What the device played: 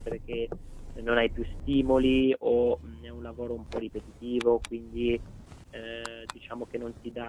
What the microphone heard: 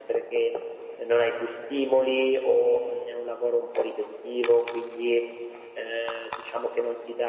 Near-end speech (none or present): none